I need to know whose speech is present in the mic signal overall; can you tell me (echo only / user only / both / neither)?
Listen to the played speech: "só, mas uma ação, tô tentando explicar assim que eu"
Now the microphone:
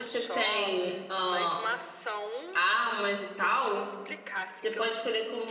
both